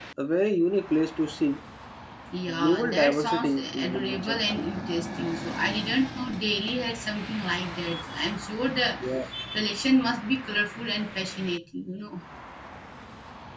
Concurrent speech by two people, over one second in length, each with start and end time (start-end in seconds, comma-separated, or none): 2.5-4.6